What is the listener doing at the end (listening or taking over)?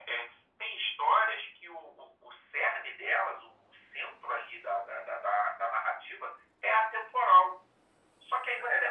taking over